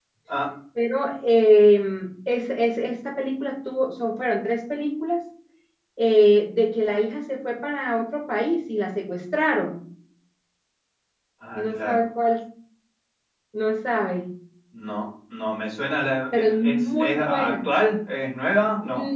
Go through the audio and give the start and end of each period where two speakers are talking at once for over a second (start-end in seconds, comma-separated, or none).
16.3-17.5